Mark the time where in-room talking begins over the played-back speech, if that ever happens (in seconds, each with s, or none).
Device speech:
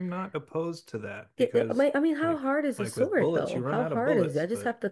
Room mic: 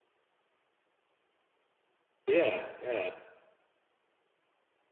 2.3 s